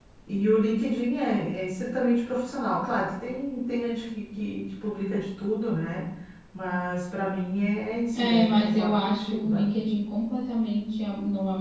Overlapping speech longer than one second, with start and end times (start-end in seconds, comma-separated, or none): 8.1-9.6